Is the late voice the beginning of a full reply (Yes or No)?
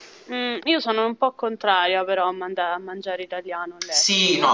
Yes